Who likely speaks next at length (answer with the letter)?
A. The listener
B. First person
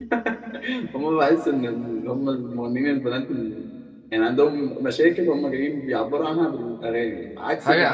A